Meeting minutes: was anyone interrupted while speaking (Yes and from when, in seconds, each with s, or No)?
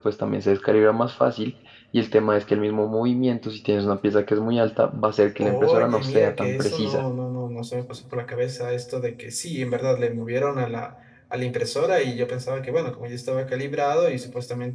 Yes, from 5.4 s